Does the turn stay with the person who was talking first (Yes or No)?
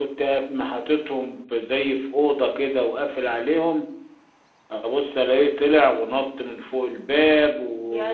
Yes